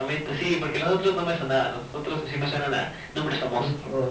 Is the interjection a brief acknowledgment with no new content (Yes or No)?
No